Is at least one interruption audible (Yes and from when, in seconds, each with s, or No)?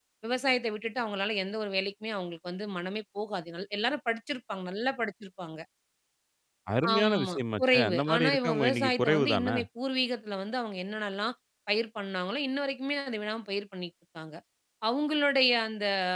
Yes, from 6.9 s